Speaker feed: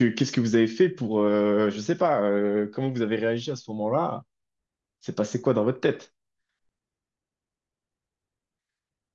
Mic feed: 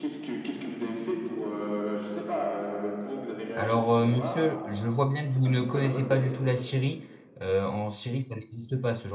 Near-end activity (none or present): present